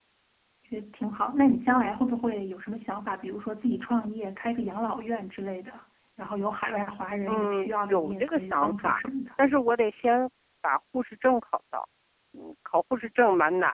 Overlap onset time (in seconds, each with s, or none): 7.3 s